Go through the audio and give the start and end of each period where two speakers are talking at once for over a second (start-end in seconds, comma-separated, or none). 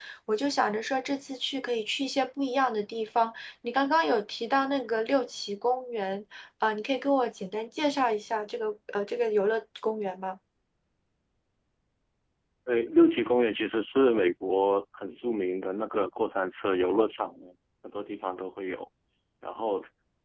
none